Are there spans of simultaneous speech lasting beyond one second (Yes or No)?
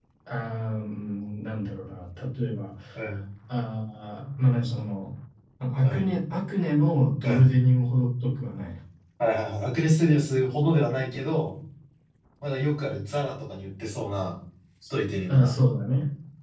No